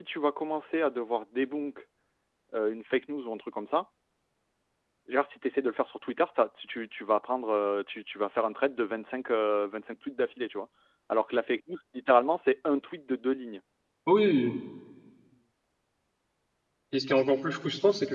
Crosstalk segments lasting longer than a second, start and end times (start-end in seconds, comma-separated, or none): none